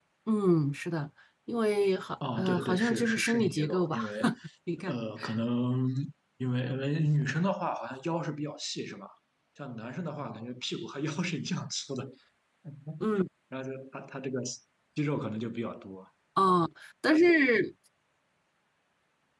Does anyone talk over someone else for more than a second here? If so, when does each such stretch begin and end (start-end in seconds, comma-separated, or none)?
2.4-4.0